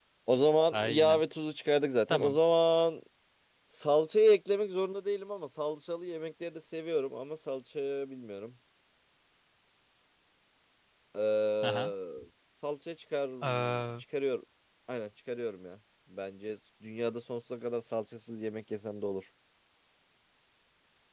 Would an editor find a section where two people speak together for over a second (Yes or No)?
No